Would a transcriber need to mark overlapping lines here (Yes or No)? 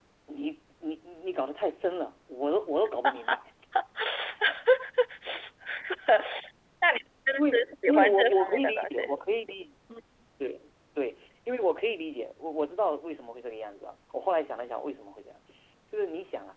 Yes